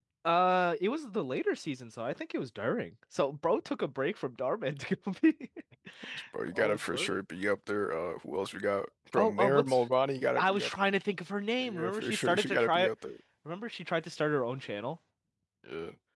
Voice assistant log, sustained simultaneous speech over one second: present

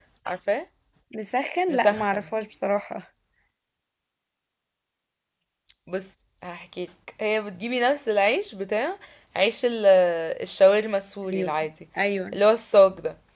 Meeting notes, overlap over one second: none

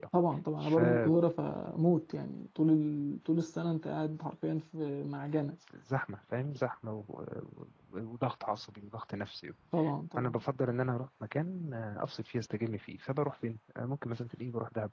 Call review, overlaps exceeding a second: none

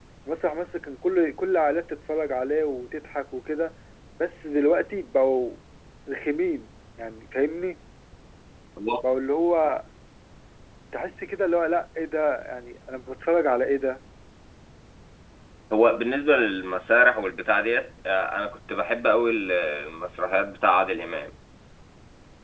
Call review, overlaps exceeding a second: none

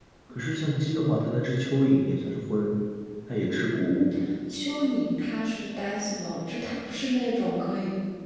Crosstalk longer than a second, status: none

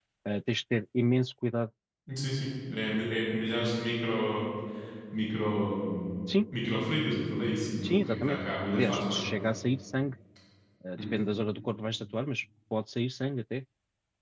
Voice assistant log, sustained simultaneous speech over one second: present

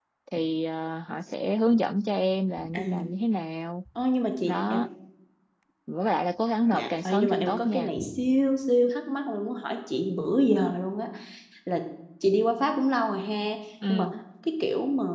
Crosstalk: present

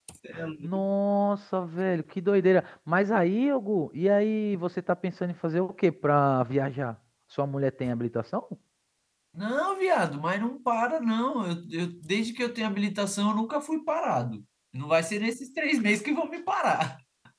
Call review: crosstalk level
none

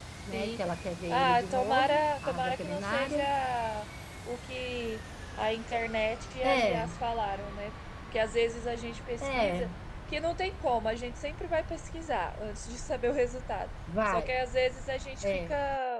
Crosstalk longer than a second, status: present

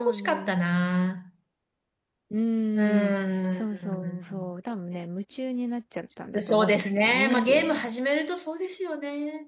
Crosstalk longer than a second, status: present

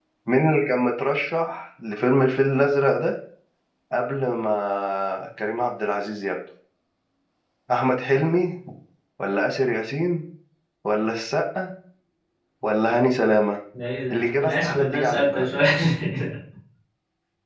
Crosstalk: present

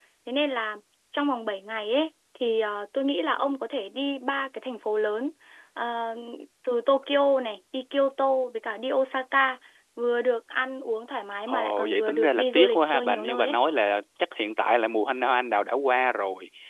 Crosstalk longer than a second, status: present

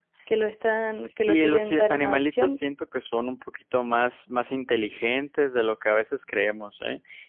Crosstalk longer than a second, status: present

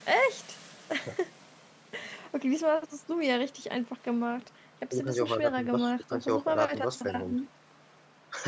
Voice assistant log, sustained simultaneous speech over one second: present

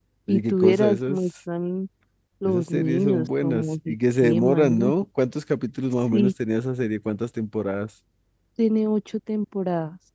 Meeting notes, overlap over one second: present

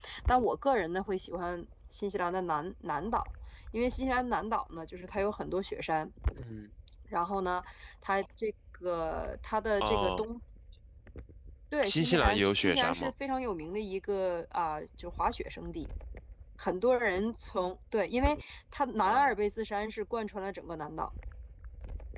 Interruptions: present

